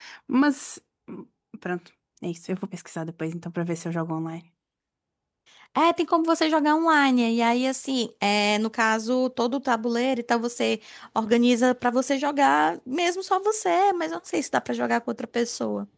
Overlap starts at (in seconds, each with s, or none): none